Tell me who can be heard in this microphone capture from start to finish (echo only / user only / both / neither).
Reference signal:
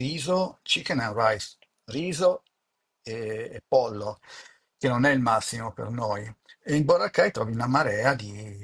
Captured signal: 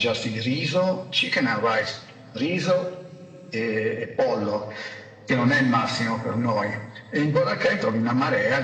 echo only